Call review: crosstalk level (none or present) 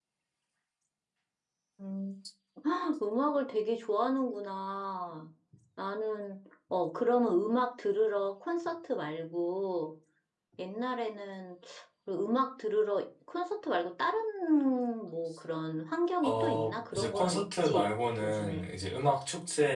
present